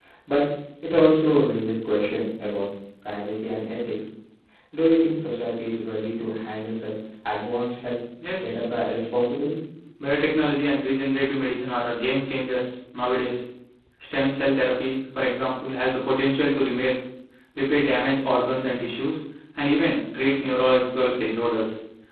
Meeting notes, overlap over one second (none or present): none